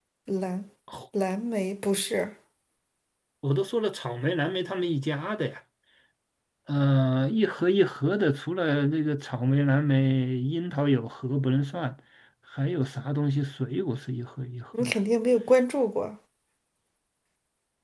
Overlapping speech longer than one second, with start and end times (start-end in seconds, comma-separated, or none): none